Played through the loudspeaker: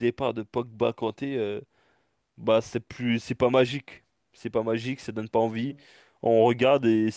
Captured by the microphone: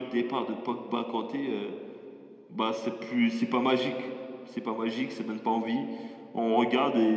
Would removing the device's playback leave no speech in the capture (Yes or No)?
Yes